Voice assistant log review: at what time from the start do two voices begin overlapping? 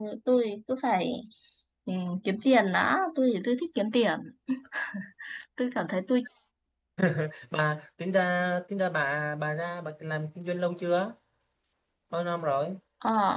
none

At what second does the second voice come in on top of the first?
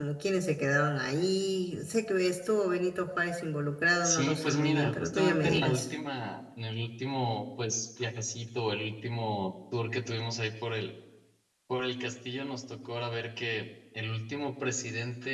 4.0 s

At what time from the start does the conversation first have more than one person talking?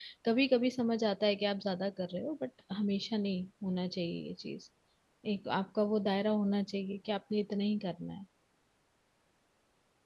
none

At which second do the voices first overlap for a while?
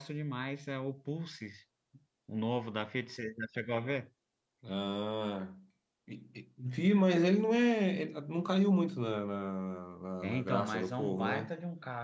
10.2 s

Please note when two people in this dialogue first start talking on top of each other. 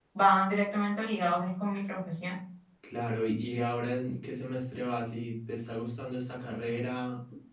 none

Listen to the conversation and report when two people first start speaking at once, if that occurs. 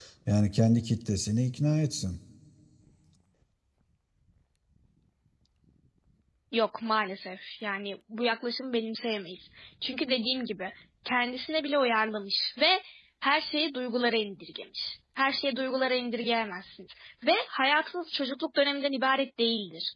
none

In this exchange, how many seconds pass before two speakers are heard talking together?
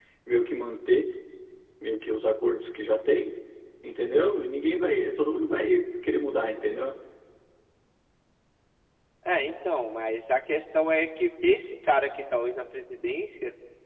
none

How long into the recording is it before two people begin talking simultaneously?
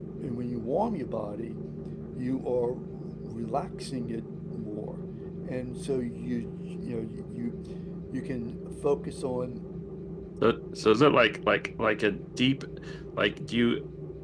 none

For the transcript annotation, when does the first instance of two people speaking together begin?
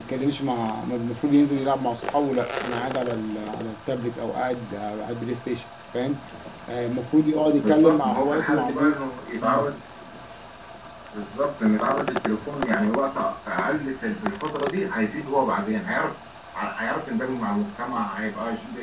7.6 s

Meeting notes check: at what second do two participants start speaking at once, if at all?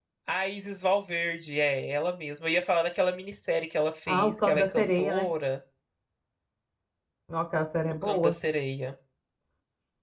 4.1 s

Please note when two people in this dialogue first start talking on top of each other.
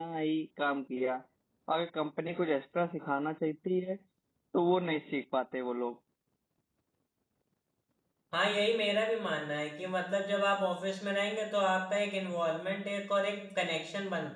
none

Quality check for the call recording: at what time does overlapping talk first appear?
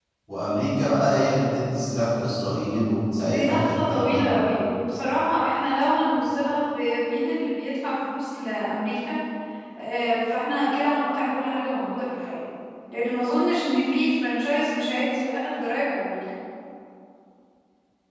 3.2 s

